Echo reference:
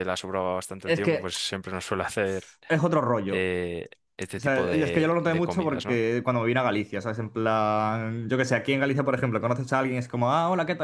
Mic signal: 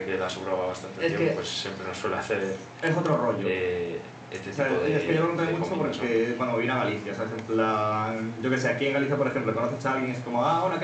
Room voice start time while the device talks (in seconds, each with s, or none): none